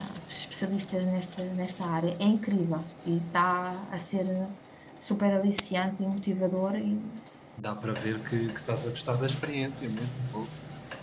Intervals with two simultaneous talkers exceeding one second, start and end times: none

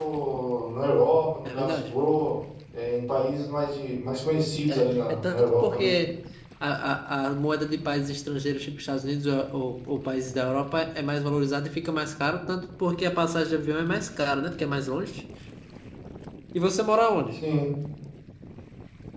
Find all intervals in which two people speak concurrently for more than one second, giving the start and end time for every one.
4.7-5.9

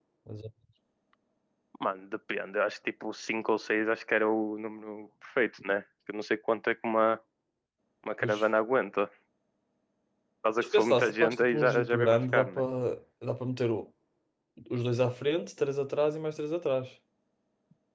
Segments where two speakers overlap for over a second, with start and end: 10.6-12.6

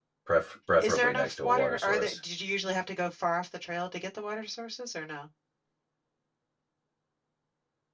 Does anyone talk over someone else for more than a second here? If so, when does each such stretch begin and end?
0.8-2.2

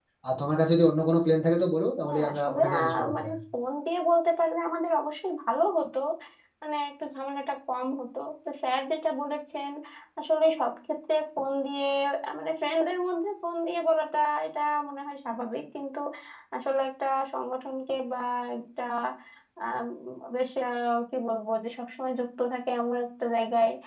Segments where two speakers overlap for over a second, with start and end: 2.0-3.4

